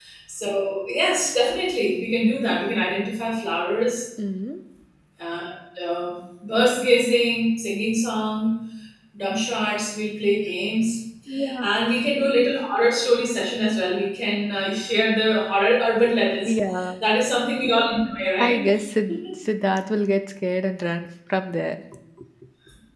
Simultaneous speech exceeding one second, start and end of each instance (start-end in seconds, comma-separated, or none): none